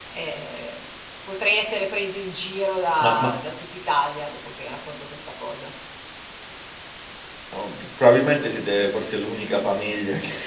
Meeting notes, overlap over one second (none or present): none